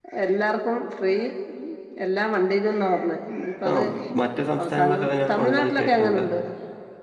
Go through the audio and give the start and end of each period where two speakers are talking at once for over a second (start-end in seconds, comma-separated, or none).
4.6-6.2